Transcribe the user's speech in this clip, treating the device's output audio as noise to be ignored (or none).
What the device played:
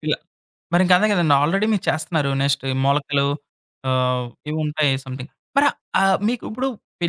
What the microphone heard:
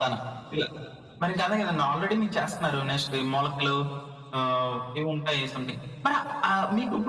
none